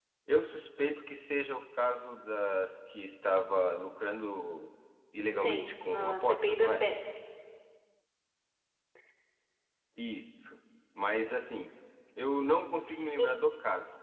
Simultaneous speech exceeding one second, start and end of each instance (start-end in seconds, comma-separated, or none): 5.4-6.9